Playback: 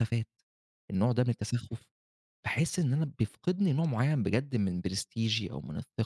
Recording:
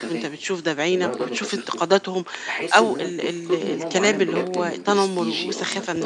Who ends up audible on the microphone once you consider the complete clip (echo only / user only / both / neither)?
both